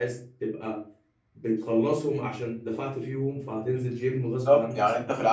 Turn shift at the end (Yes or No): Yes